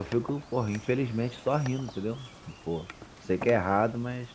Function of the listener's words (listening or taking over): listening